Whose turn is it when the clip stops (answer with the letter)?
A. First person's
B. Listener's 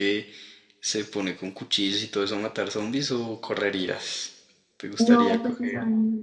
B